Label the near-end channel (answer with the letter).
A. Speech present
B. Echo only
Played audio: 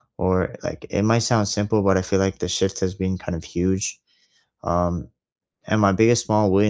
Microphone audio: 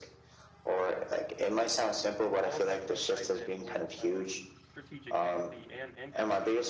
A